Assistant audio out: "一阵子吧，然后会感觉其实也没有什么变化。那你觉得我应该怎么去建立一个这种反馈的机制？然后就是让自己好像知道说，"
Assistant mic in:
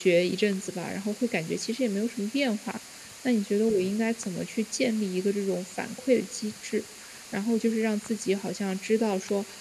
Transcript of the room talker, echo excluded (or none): none